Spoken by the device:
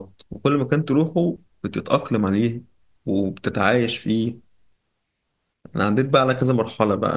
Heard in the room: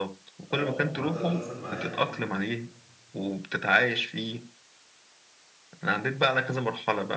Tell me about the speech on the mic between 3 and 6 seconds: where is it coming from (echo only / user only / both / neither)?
echo only